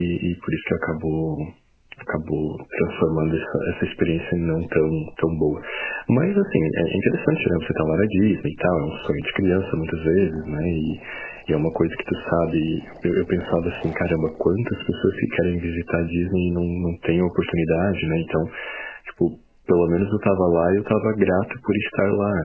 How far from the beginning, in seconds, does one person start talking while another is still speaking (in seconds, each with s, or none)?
none